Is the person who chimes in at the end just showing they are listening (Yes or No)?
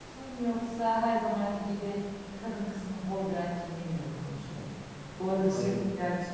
Yes